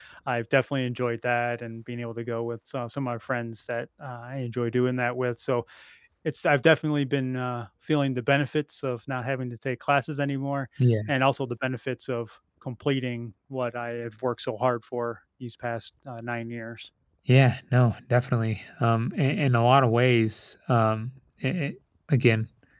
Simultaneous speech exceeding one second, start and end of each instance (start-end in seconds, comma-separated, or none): none